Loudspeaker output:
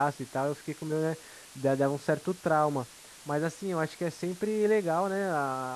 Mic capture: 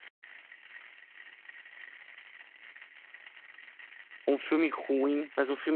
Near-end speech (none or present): present